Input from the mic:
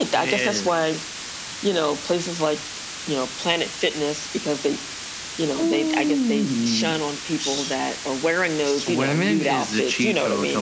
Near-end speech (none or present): none